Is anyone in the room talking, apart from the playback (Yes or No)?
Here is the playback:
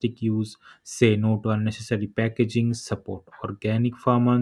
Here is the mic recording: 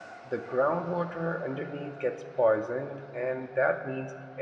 Yes